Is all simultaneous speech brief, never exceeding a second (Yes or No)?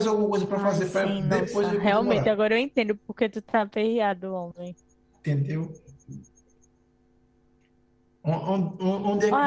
No